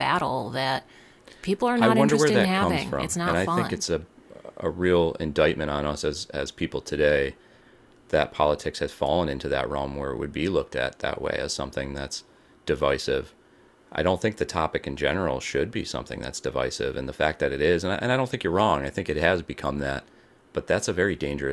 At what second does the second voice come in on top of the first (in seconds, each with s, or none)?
1.8 s